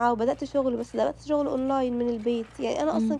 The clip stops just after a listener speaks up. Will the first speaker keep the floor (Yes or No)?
Yes